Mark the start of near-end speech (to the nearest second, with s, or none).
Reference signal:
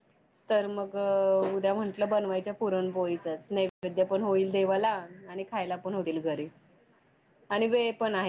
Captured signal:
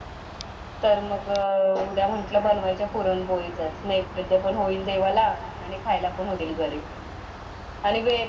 none